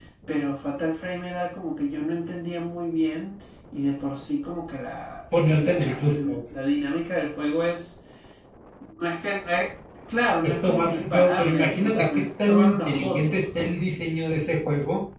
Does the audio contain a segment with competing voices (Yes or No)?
Yes